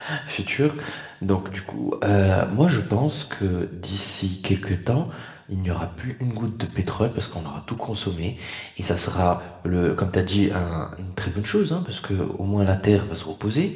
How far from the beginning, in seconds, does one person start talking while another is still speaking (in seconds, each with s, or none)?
none